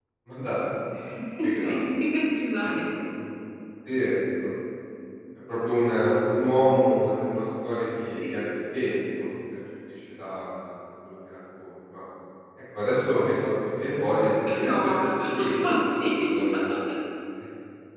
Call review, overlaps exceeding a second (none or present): present